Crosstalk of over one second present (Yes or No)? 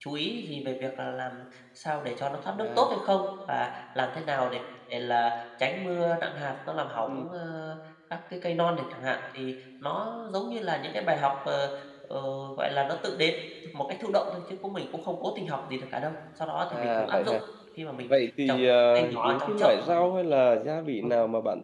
Yes